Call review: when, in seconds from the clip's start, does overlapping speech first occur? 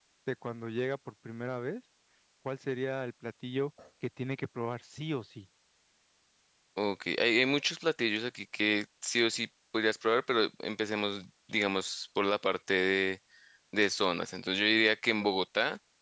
none

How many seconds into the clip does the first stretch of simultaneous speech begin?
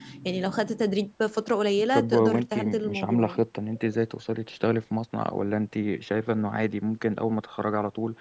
2 s

